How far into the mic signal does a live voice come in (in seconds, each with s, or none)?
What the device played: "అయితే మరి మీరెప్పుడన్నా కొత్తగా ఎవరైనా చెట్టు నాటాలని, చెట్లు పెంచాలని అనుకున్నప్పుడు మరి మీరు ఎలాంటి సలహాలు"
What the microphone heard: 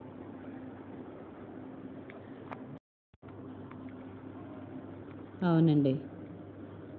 5.5 s